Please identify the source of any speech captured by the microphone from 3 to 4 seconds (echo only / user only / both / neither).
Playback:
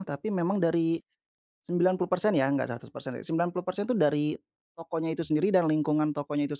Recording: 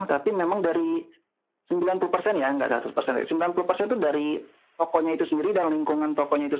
echo only